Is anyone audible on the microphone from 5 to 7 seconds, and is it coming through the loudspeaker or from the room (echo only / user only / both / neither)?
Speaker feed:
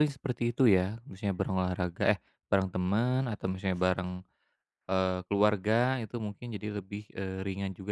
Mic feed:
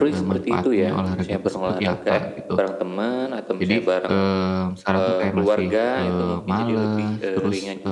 both